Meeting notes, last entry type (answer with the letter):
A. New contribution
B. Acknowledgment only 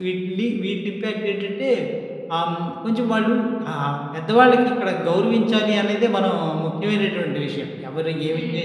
B